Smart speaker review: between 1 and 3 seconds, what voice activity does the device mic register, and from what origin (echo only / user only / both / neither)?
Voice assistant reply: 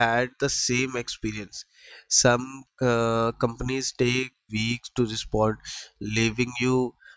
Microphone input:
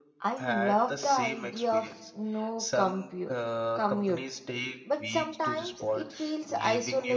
both